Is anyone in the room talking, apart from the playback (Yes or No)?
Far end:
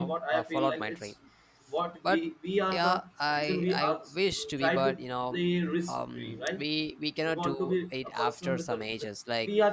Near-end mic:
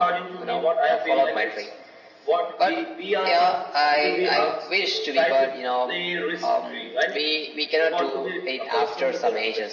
No